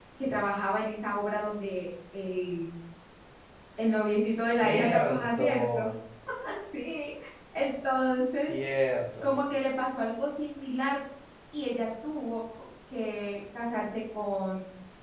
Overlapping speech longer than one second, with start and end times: 4.4-5.8

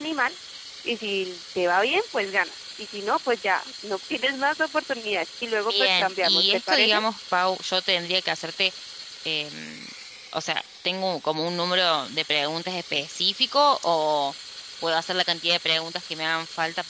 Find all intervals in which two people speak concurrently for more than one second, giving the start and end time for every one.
5.7-7.0

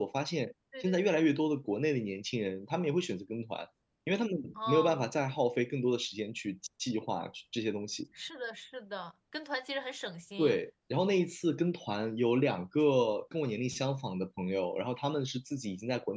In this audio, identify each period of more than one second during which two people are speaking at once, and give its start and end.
none

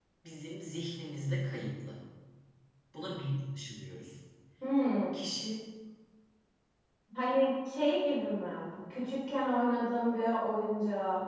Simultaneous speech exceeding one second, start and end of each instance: none

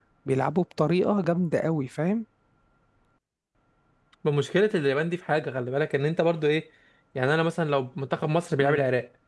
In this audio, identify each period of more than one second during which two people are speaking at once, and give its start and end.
none

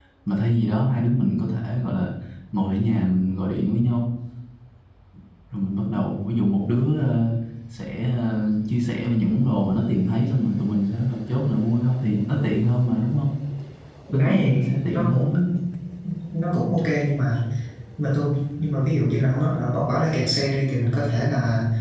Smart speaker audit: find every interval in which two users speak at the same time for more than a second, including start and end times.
14.1-15.4

